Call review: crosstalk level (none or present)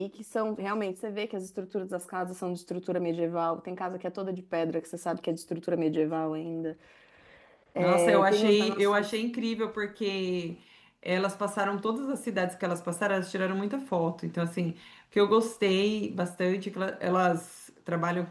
present